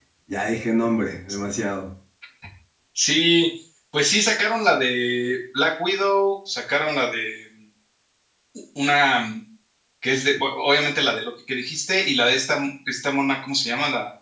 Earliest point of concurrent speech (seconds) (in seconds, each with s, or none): none